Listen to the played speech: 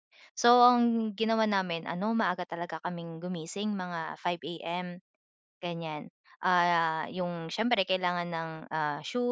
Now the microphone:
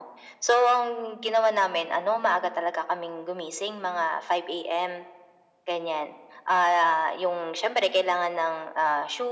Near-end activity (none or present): none